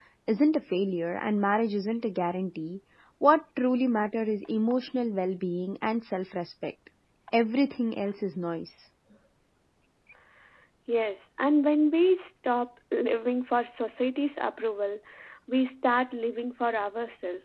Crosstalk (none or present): none